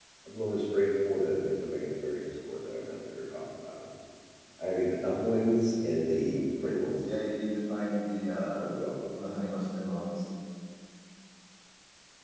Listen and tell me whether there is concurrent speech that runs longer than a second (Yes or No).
No